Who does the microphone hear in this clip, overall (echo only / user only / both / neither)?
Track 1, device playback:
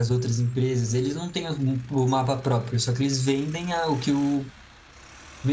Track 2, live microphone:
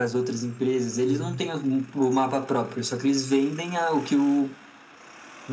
both